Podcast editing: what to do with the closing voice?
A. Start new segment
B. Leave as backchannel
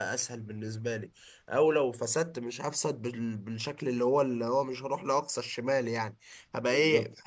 B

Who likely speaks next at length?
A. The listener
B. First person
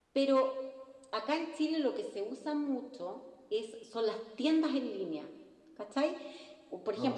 B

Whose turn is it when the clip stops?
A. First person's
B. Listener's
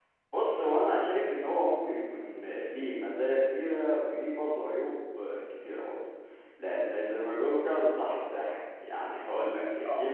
A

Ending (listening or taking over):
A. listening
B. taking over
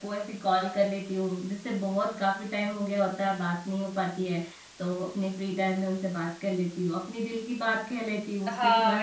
B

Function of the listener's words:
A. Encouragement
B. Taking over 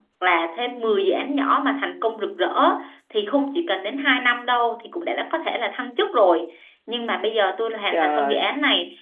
A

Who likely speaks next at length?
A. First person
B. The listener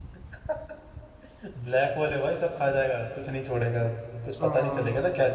A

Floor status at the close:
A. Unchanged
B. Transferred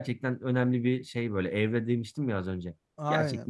B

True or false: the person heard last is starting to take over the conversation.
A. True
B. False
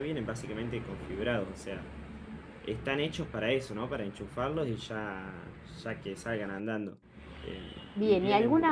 A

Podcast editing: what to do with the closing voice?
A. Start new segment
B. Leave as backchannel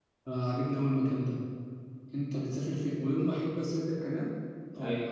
B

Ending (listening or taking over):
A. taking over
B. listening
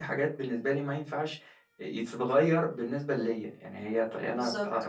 B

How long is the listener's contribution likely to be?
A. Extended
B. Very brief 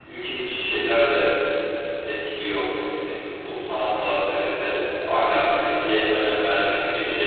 B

